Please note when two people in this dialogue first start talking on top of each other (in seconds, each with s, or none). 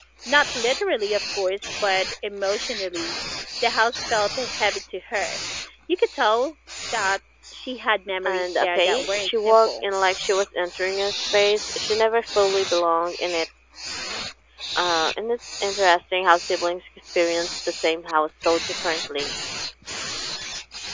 8.2 s